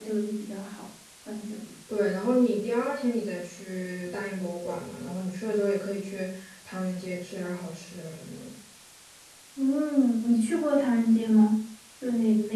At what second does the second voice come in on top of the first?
none

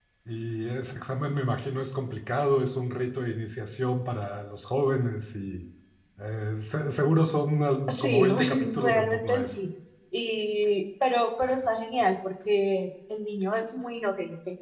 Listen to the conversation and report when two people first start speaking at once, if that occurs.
7.9 s

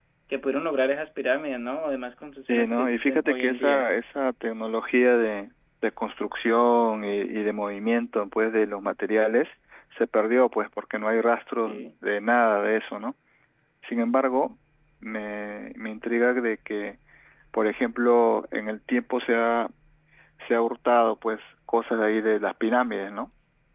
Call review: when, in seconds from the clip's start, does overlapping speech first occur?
2.5 s

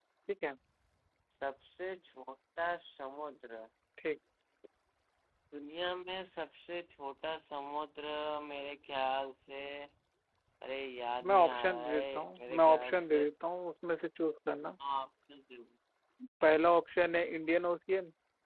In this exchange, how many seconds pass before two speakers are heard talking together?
11.2 s

